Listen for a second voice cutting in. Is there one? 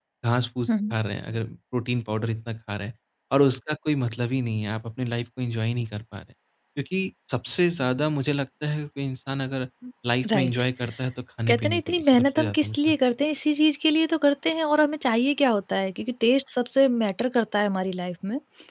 Yes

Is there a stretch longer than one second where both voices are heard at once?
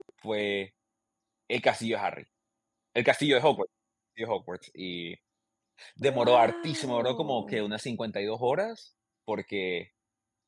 Yes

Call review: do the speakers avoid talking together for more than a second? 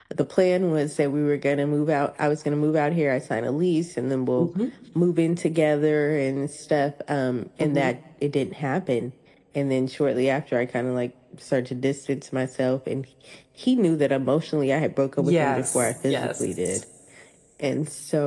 No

